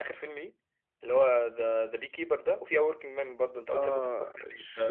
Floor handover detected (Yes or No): Yes